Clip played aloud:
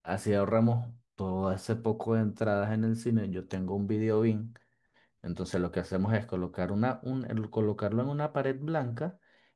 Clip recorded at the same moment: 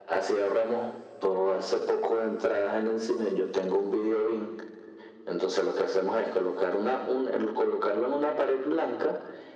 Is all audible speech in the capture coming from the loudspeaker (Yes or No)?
Yes